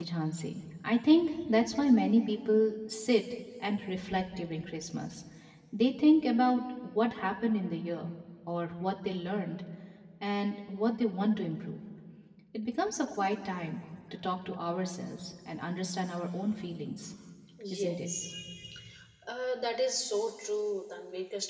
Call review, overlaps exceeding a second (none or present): none